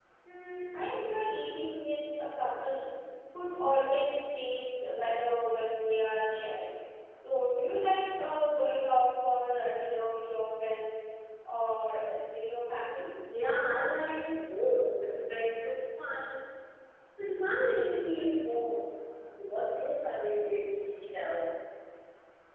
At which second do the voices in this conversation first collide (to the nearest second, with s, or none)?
none